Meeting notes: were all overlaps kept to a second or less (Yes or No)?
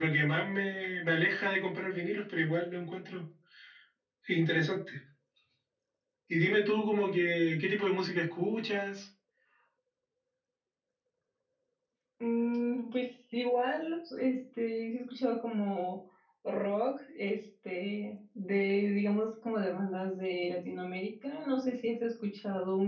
Yes